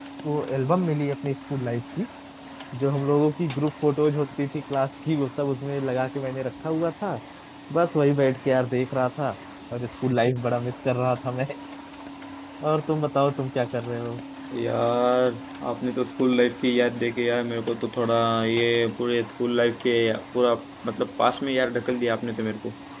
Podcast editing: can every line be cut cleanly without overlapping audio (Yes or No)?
Yes